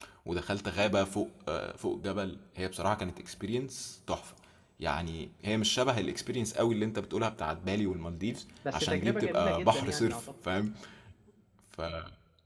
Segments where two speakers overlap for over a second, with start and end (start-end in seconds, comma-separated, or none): 8.7-10.2